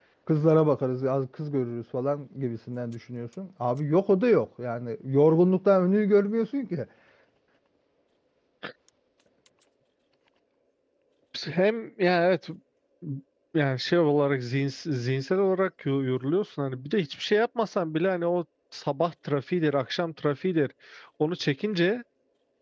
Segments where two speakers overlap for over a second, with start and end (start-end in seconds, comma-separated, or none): none